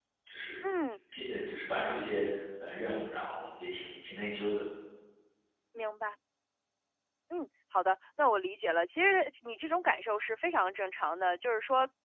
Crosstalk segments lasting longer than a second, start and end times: none

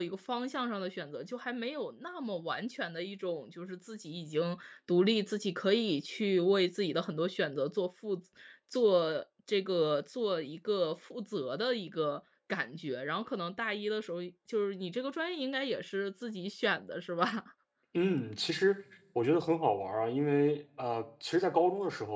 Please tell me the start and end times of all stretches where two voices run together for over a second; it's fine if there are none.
none

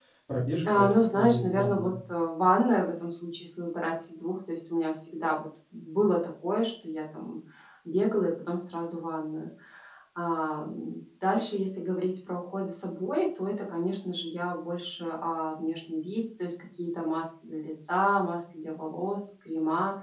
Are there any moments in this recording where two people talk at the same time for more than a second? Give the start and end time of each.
0.7-1.9

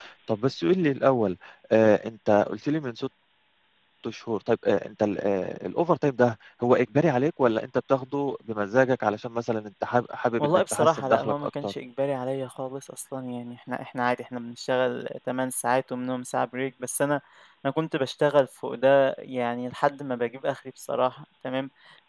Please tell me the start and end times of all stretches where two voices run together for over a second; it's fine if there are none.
10.4-11.7

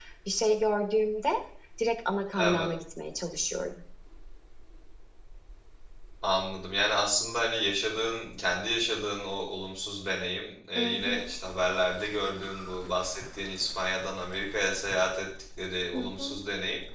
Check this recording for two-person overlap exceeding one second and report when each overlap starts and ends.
none

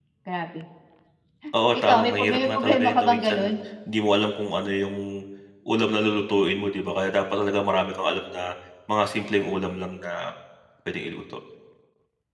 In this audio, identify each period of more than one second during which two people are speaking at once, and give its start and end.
1.8-3.4

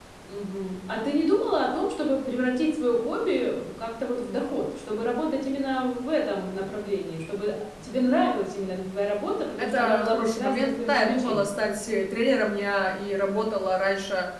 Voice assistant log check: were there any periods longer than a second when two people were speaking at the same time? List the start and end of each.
9.6-11.5

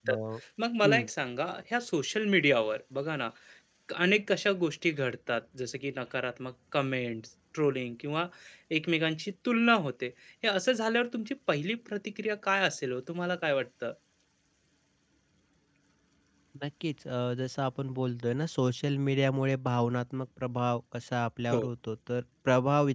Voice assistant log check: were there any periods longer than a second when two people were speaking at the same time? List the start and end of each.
none

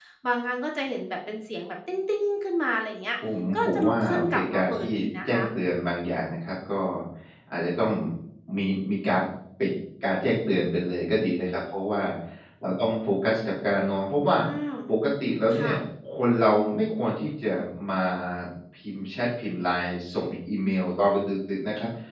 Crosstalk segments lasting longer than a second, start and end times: 3.5-5.3

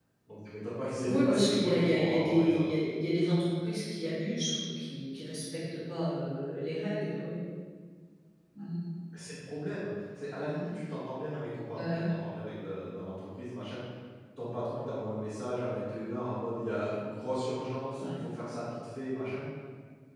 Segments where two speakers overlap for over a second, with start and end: 1.1-2.6

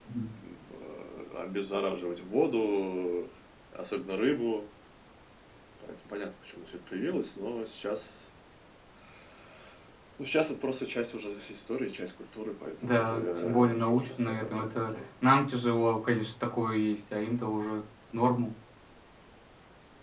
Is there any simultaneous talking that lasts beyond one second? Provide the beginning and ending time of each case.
12.8-14.9

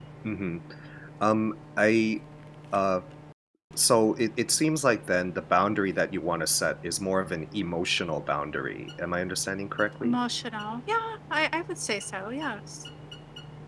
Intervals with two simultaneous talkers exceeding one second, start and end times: none

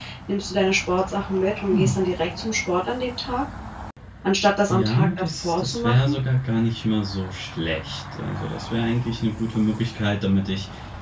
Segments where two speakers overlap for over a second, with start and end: 4.7-6.2

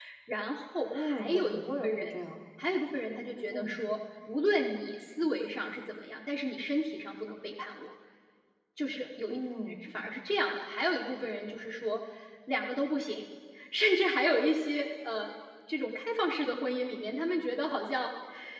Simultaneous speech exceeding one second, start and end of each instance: 0.9-2.2

